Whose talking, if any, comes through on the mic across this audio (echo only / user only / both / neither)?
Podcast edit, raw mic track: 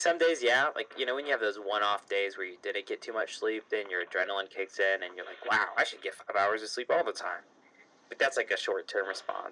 echo only